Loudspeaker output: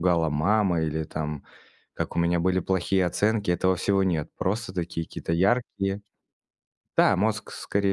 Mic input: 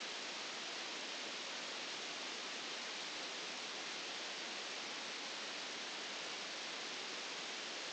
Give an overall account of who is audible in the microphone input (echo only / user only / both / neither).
neither